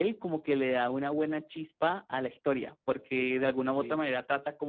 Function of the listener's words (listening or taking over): listening